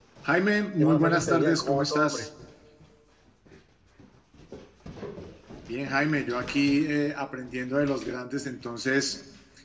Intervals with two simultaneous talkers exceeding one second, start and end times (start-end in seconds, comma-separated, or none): 0.8-2.2